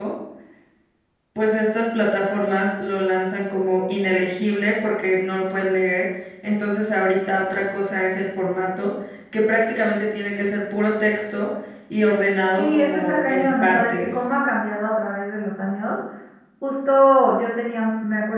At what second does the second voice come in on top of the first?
13 s

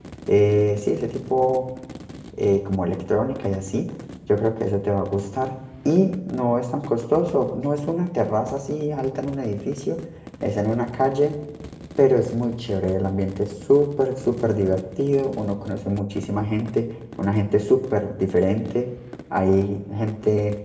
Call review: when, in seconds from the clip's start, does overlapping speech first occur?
none

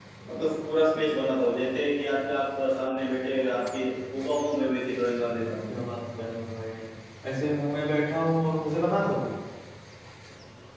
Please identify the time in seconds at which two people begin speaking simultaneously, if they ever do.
none

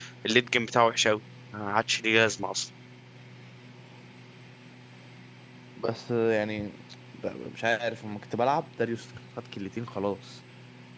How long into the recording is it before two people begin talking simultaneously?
none

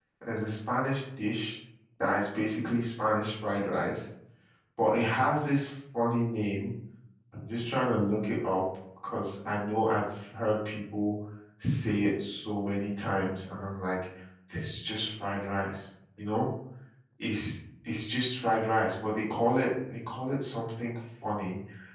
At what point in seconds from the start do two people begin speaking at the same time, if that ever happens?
none

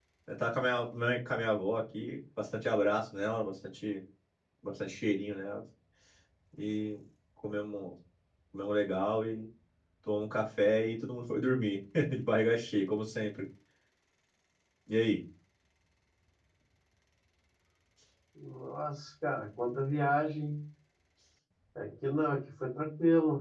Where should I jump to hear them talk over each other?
none

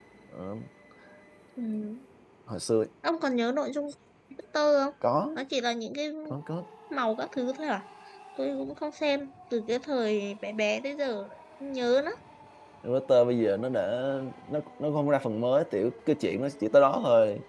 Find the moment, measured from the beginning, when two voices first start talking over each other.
none

